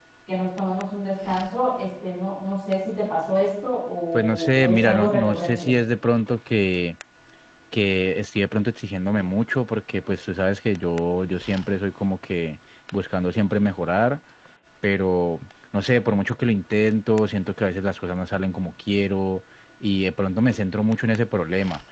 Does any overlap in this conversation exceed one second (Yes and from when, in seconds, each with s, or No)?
Yes, from 4.1 s